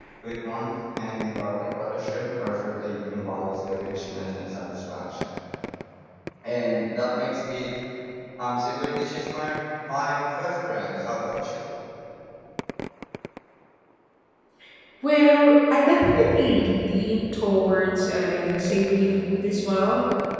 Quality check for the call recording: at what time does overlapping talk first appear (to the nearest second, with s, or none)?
none